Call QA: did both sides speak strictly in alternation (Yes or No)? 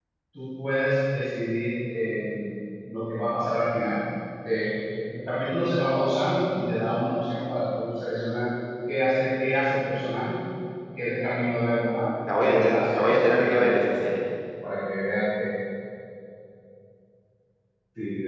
No